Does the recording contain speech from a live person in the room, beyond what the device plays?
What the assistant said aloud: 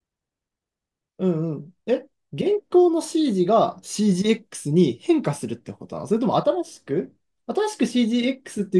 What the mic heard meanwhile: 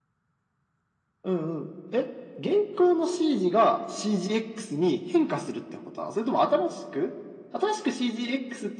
No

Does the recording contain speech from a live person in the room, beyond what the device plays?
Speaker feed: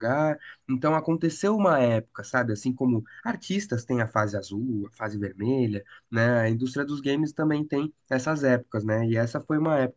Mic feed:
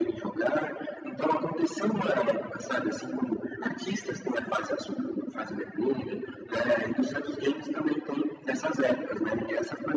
No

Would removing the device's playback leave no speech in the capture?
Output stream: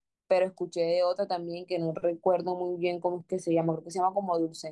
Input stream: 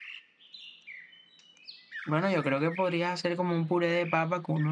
No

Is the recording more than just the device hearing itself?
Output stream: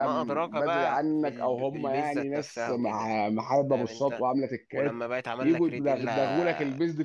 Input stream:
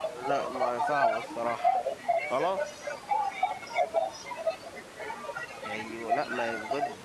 Yes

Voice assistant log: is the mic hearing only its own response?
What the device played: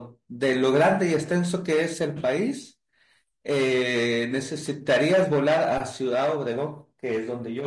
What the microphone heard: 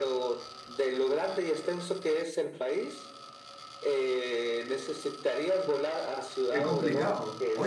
No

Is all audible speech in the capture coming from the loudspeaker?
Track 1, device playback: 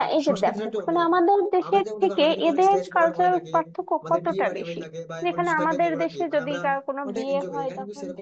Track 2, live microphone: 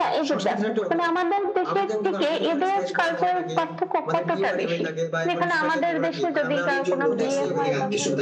No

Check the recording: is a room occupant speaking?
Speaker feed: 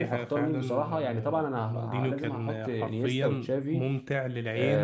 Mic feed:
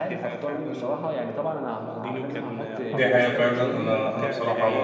Yes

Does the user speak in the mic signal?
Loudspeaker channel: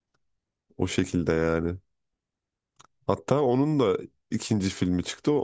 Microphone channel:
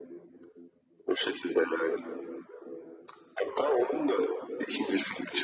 No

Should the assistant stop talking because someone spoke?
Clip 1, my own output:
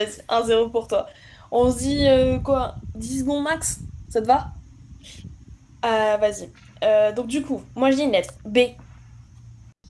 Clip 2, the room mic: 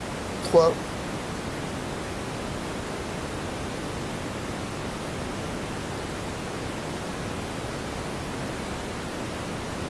Yes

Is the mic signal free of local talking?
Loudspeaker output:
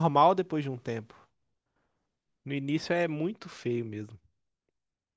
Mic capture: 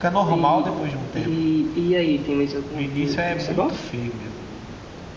No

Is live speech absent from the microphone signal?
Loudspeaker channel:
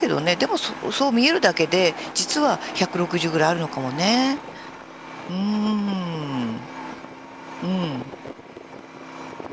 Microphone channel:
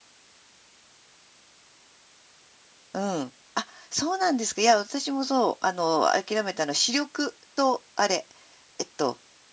No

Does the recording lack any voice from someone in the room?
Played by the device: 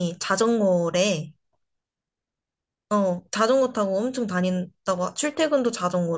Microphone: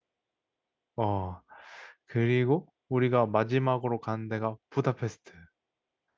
No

